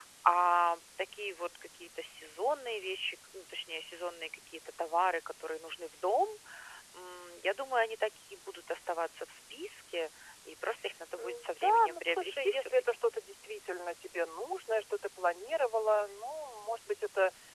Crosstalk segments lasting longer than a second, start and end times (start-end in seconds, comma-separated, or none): 11.2-13.0